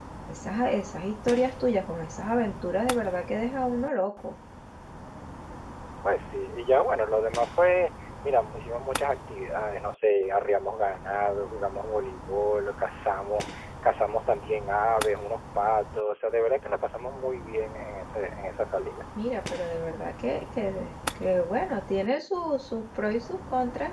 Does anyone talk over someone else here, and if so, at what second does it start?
none

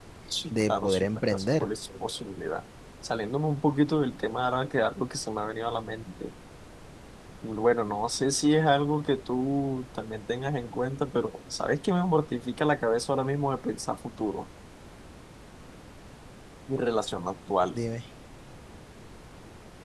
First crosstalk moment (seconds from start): 0.5 s

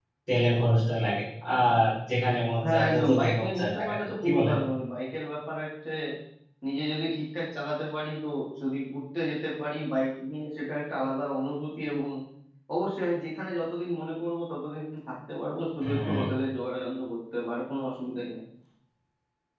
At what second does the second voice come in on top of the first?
2.6 s

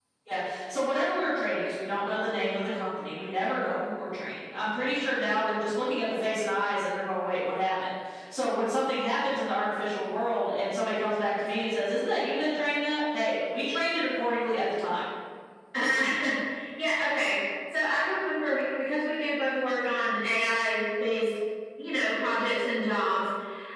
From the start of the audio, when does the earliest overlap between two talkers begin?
none

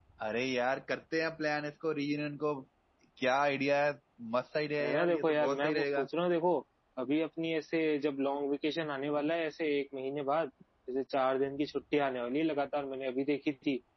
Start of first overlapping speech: 4.8 s

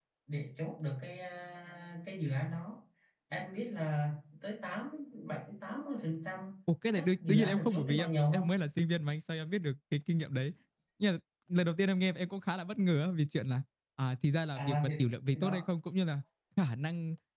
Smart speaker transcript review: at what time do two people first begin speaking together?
6.9 s

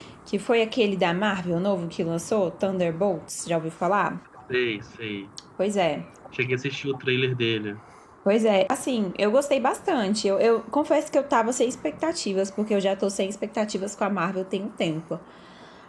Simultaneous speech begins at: none

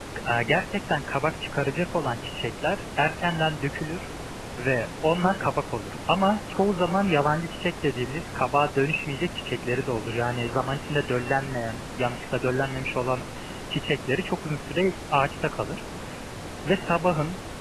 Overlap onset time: none

